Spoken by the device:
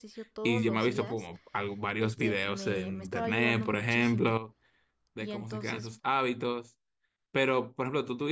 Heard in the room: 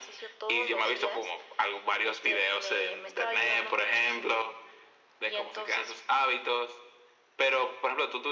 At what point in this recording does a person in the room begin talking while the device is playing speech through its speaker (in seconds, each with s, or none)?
none